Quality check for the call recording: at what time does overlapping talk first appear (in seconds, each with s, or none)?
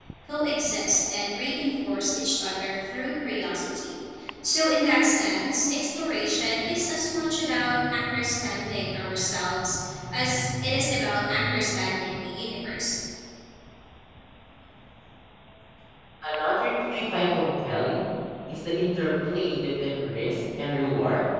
none